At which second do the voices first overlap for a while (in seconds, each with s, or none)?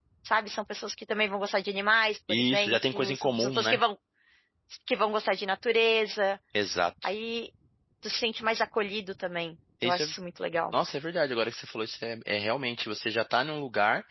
2.3 s